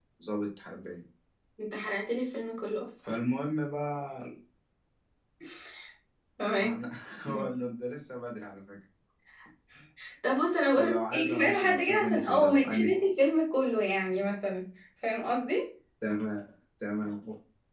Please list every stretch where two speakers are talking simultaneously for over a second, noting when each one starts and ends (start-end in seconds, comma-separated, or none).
10.8-12.9